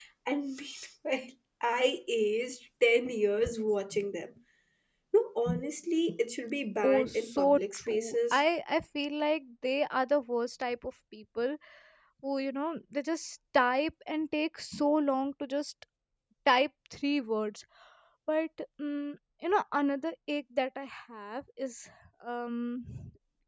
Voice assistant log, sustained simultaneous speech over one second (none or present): present